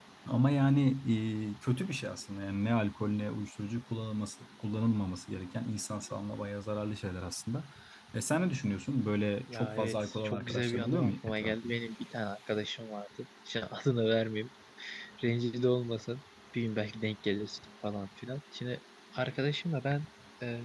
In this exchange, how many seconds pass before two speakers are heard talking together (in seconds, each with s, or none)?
9.5 s